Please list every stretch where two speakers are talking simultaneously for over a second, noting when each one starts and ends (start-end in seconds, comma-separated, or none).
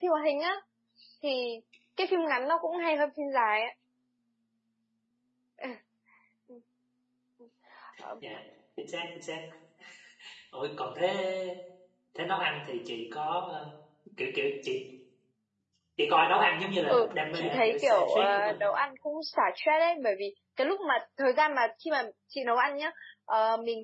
16.9-18.7